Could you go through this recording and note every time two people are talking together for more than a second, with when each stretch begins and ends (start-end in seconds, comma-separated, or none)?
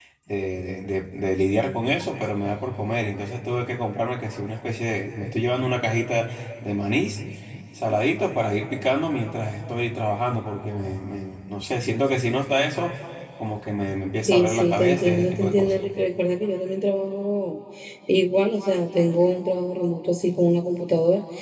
14.2-15.8